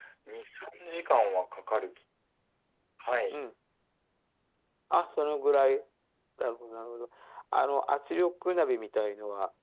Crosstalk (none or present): none